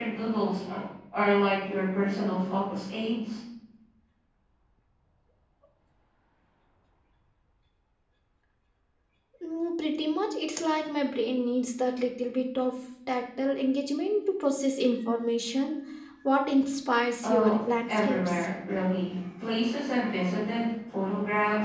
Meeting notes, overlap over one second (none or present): present